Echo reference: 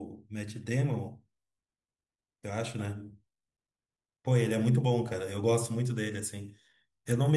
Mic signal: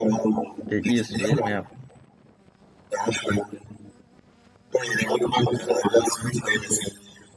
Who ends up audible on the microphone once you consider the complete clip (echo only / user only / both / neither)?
both